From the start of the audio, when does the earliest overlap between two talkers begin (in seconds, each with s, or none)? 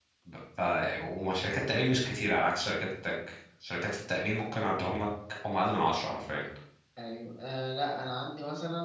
none